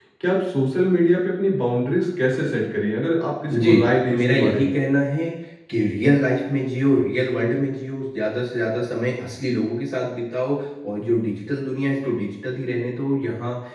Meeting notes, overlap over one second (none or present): present